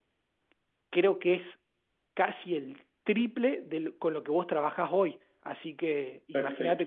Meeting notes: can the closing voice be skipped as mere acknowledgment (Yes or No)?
No